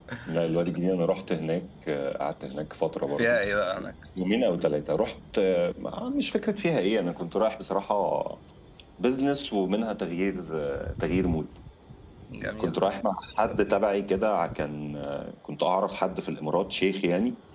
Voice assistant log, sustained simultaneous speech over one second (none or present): none